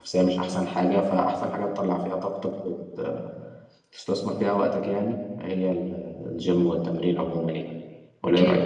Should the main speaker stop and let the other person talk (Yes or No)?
Yes